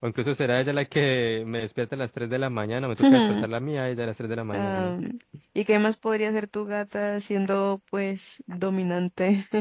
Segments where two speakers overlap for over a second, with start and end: none

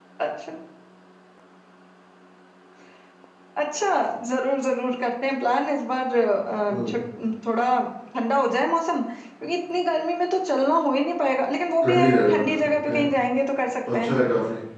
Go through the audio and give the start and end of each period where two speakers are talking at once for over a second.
11.8-13.1

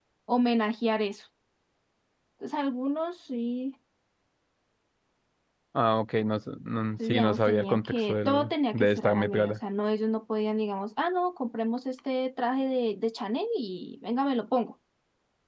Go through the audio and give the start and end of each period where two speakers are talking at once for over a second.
7.0-9.6

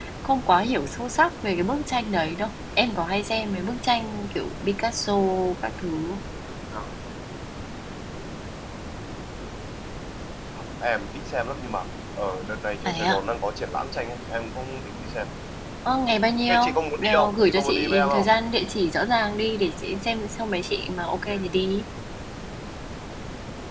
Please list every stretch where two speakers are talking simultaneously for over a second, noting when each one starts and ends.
17.0-18.3

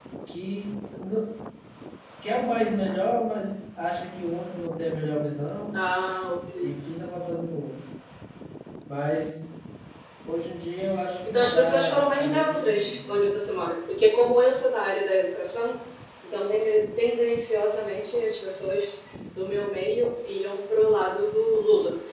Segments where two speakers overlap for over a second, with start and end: 11.3-13.0

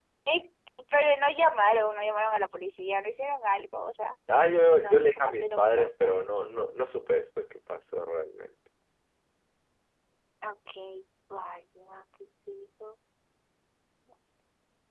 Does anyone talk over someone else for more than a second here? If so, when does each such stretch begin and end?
4.8-6.1

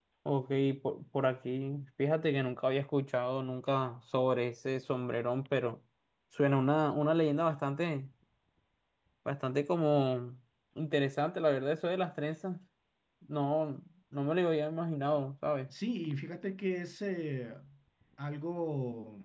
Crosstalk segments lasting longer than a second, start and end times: none

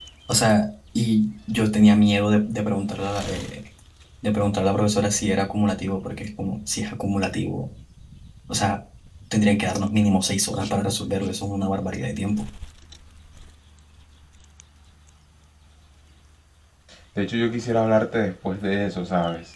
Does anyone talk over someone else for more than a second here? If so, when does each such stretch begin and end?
none

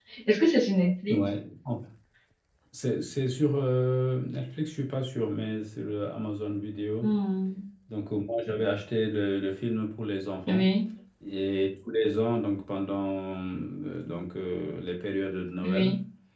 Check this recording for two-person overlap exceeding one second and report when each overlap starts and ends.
none

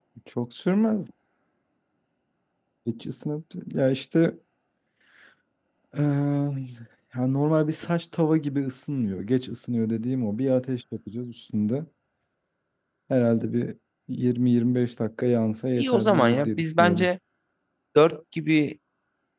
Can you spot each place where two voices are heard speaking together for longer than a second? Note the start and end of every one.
15.8-17.1

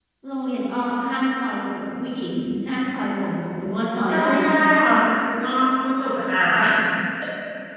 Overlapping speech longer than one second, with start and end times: none

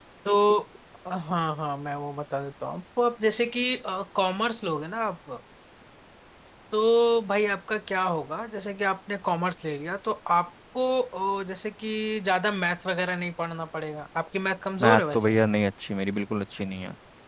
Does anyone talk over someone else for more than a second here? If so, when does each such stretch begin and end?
none

